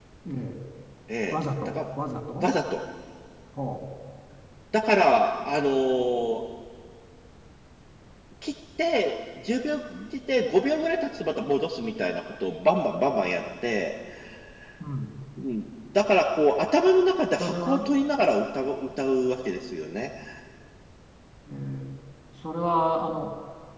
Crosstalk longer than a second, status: none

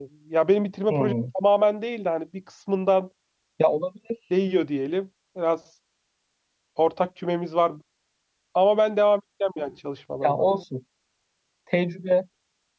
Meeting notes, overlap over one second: none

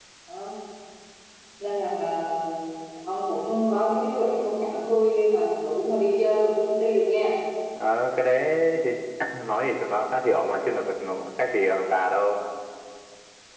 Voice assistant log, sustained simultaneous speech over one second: none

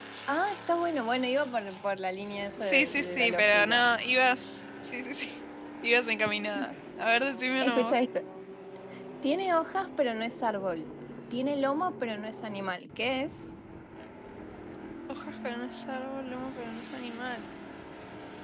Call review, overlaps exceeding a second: present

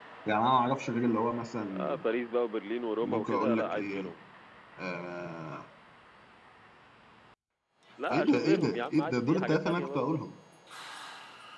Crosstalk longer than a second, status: present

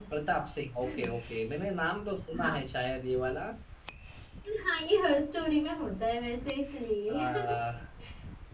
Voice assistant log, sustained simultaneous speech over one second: none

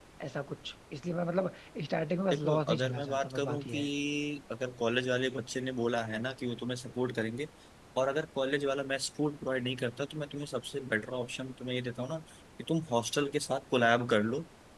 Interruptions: present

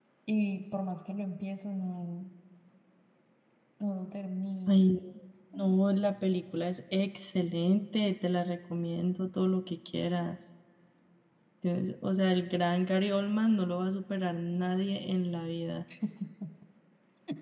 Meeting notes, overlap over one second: none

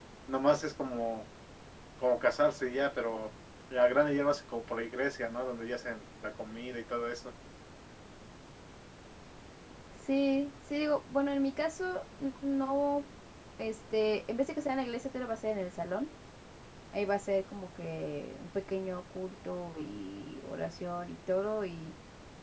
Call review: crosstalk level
none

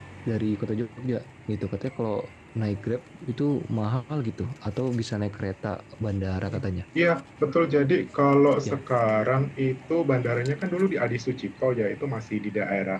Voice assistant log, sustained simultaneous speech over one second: none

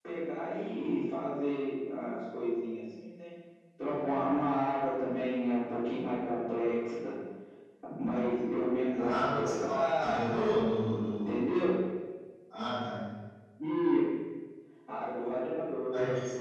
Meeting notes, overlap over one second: present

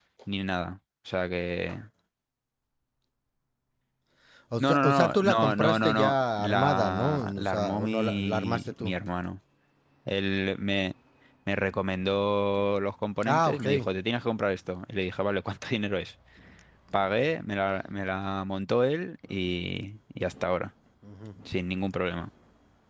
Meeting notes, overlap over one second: present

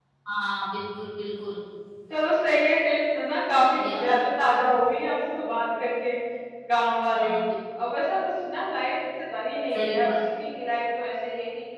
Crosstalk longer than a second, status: none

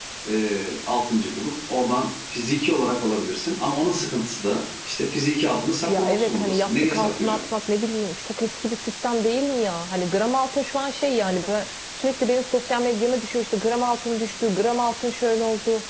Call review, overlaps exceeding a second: present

